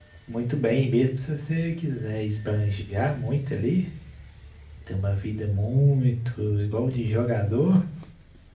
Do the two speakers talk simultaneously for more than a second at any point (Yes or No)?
No